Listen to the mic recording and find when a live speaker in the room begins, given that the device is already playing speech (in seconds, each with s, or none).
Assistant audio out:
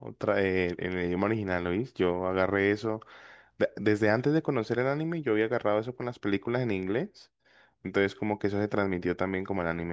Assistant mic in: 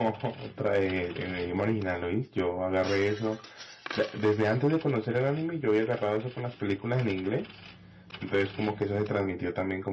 none